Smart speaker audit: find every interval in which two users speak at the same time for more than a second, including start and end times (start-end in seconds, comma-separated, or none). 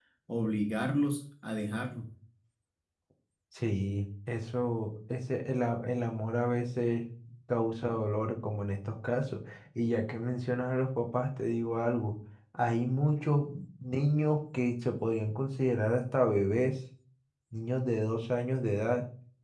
none